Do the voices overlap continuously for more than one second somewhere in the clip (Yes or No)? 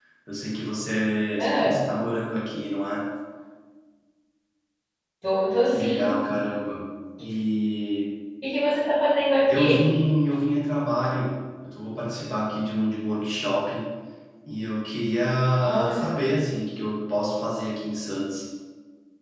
No